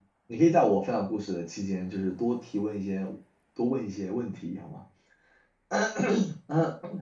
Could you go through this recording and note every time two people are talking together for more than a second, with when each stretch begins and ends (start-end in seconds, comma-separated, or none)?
none